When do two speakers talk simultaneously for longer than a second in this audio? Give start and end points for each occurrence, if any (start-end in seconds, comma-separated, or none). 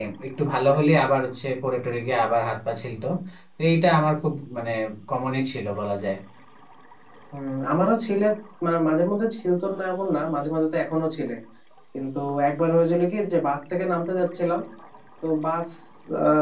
none